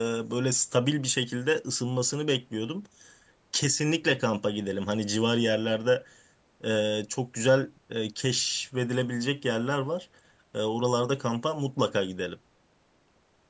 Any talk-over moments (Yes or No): No